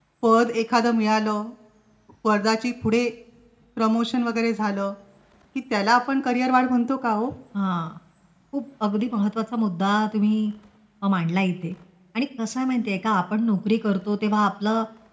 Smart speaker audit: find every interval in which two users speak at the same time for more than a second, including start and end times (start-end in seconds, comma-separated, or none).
none